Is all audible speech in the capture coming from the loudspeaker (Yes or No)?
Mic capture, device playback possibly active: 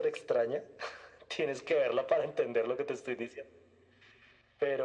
Yes